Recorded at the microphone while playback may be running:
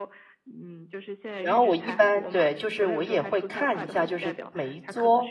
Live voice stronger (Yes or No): Yes